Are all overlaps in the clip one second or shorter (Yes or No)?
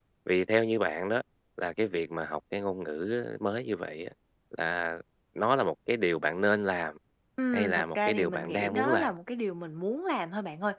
No